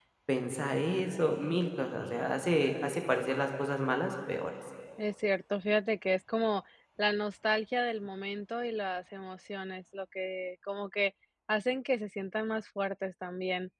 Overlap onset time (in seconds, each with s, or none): none